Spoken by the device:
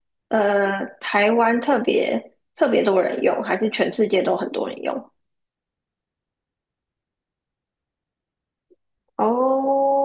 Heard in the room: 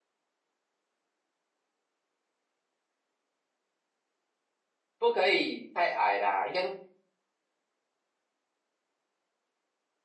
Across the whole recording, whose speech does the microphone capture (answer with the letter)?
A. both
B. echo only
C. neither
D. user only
D